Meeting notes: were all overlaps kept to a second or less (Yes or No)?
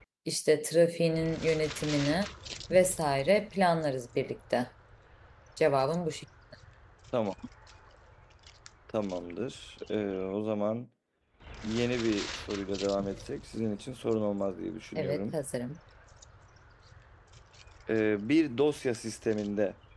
Yes